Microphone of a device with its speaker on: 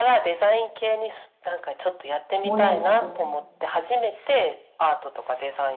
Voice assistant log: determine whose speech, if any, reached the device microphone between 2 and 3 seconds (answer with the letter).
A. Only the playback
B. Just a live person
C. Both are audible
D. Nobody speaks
C